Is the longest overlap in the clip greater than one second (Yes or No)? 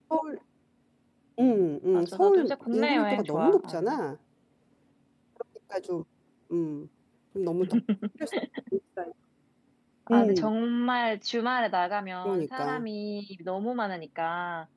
Yes